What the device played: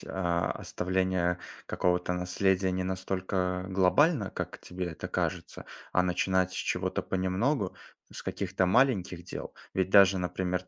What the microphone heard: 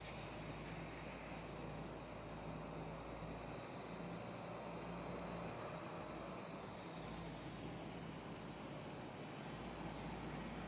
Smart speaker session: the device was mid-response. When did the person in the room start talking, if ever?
none

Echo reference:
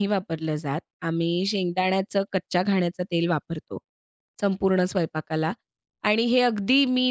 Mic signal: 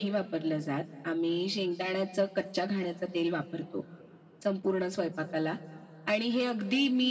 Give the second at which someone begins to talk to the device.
none

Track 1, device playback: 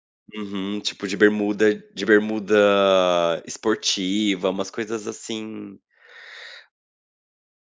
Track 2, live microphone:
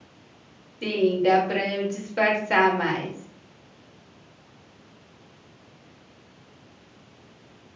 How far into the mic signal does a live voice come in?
0.8 s

